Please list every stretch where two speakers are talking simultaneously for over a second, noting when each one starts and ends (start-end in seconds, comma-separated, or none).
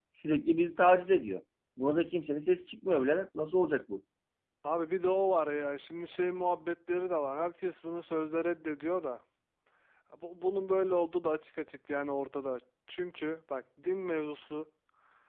none